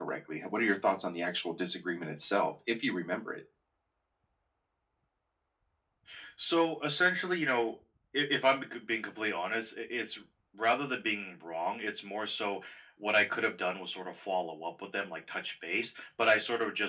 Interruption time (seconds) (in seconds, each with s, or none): none